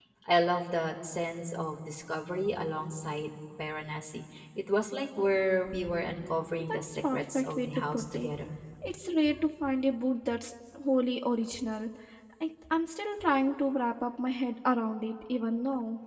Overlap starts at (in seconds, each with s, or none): 6.6 s